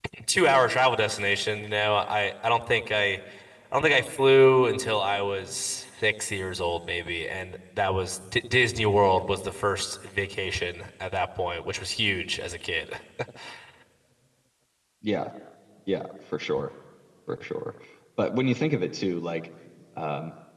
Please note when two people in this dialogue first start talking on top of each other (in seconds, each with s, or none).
none